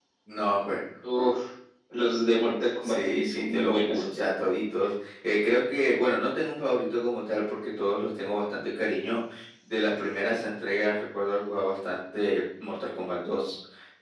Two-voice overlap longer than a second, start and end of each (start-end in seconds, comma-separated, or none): 2.8-4.0